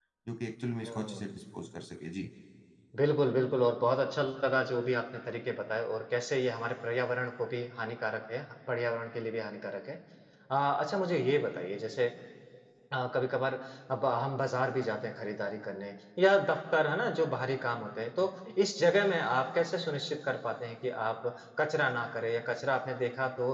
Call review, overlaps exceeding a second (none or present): none